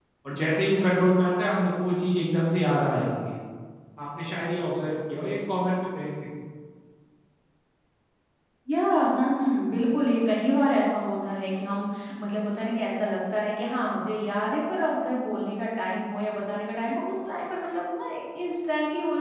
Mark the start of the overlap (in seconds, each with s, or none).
none